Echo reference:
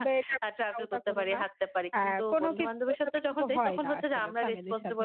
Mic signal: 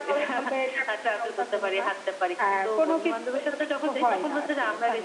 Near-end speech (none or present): none